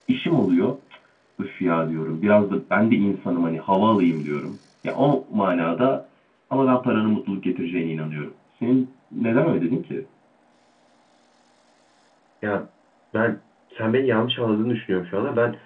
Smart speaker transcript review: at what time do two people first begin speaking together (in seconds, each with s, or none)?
none